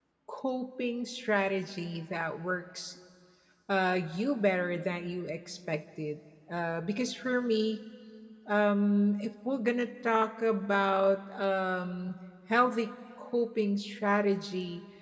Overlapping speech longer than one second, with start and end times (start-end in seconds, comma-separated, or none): none